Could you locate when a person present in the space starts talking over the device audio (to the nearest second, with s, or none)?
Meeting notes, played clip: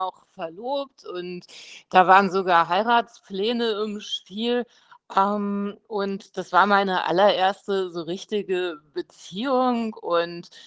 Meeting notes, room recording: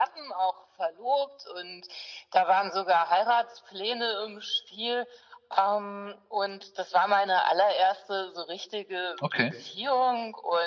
9 s